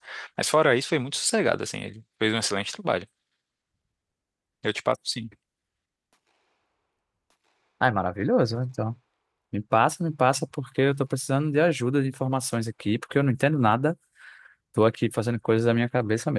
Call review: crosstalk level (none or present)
none